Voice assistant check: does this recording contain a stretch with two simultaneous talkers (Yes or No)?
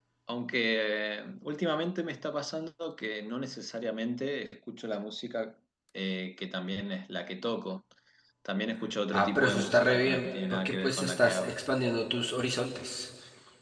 Yes